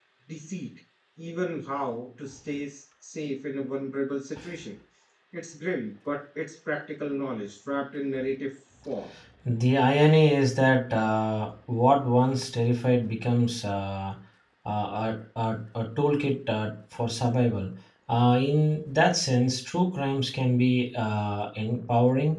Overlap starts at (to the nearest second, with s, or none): none